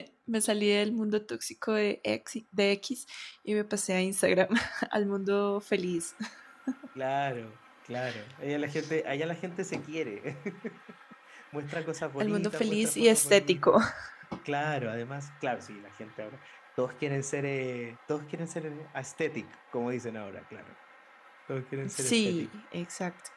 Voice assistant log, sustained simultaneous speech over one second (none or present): present